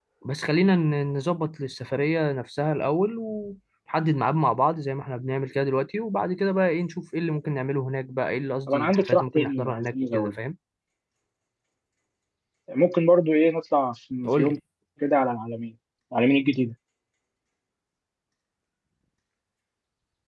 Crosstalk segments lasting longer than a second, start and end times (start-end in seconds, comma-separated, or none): 8.7-10.3